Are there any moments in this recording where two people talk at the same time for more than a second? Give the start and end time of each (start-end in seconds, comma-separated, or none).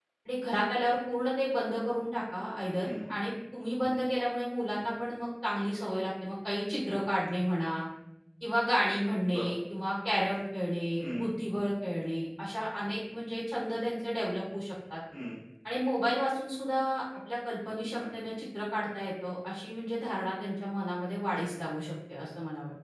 none